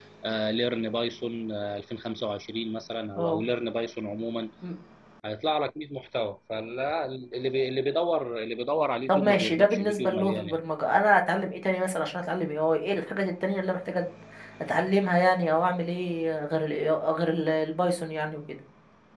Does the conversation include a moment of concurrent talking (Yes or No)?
Yes